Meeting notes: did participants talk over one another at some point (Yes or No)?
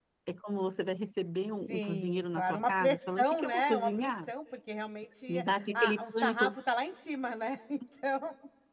Yes